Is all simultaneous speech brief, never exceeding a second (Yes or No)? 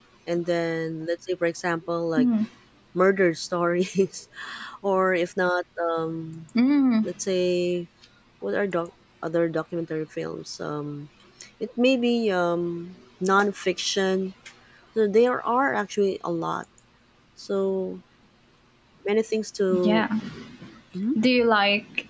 Yes